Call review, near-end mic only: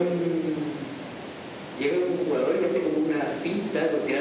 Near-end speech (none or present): none